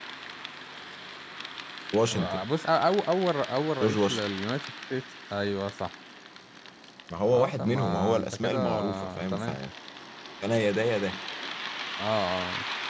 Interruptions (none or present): present